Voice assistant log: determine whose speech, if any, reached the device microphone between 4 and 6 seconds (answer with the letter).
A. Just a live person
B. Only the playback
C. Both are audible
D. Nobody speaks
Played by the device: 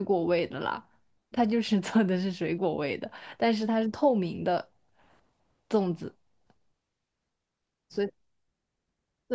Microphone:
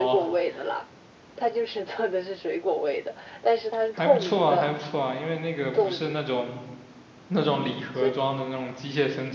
C